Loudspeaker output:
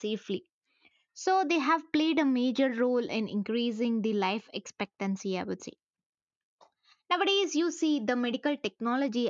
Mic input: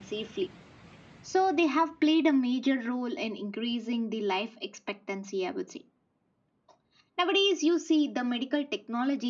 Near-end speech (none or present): none